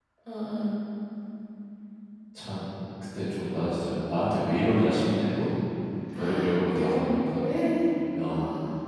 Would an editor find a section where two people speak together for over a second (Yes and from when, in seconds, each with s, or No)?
Yes, from 6.2 s